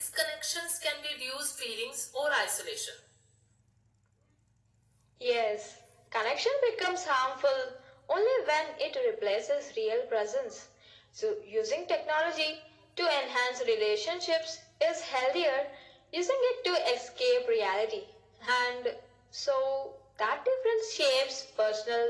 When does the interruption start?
none

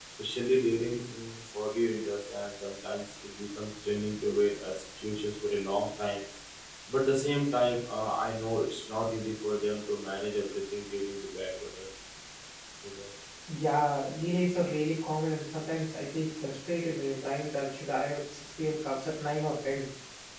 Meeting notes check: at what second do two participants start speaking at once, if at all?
none

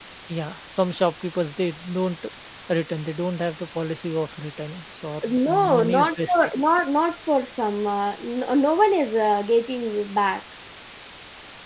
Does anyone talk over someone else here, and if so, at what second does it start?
5.2 s

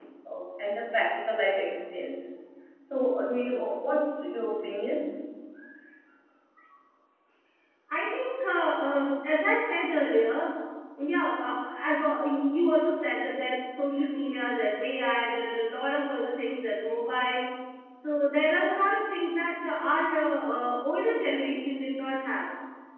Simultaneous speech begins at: none

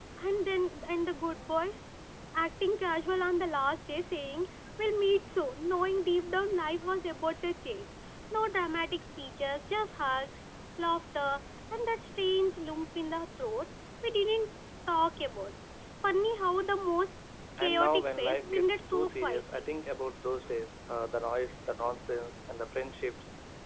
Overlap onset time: 17.6 s

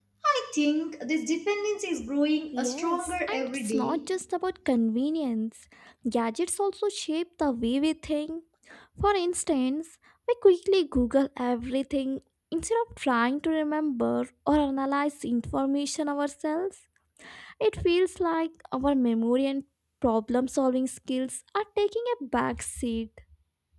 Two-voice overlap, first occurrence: 2.5 s

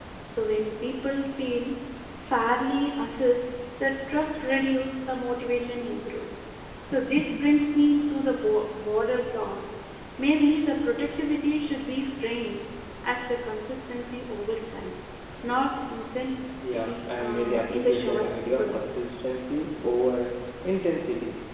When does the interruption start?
16.6 s

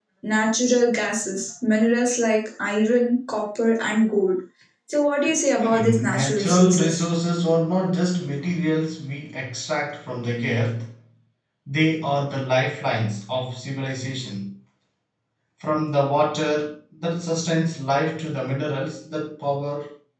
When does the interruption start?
5.6 s

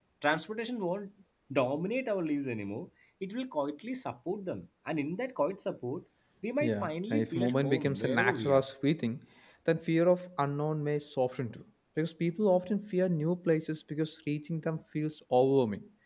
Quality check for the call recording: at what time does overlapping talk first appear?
6.6 s

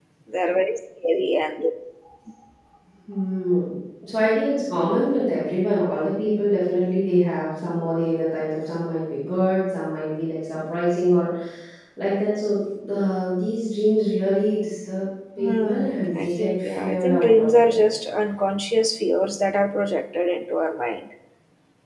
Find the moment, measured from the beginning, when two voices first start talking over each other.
15.4 s

